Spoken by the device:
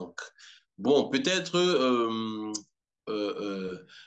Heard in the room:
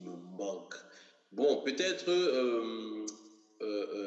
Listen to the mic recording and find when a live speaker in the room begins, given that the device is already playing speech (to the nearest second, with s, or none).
none